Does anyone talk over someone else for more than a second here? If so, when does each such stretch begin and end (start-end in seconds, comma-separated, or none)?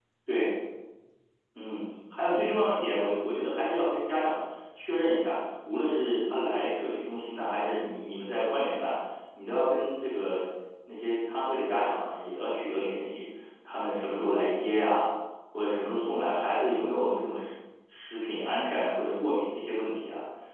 none